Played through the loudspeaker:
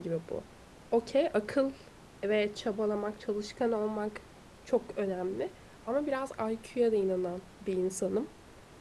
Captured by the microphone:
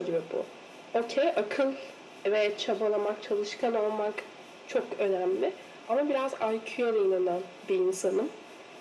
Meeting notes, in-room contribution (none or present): none